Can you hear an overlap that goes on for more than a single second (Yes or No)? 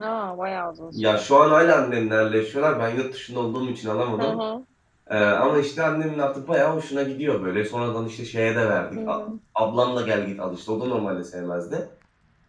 No